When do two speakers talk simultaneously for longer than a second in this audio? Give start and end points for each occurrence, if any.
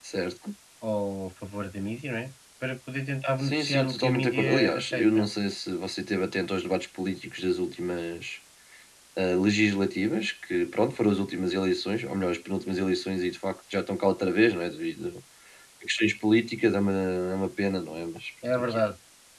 3.4-5.3

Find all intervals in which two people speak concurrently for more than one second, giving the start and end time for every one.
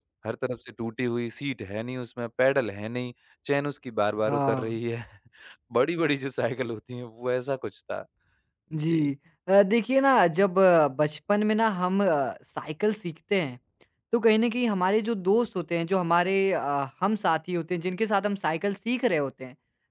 none

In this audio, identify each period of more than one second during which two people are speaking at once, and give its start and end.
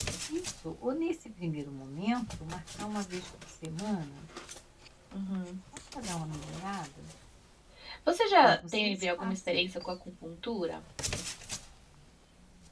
8.4-9.9

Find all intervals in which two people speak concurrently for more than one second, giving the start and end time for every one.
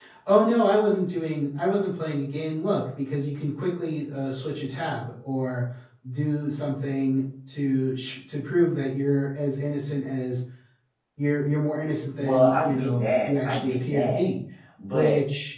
12.2-14.2

